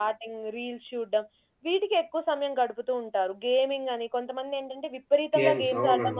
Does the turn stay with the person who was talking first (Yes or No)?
Yes